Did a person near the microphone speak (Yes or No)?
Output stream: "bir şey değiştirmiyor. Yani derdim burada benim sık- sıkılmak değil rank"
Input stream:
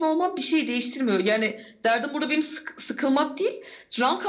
No